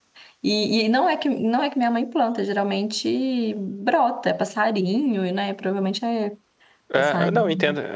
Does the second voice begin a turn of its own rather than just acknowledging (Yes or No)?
Yes